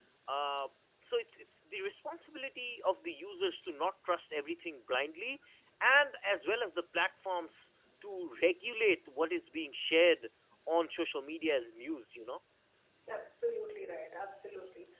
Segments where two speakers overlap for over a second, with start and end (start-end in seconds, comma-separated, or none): none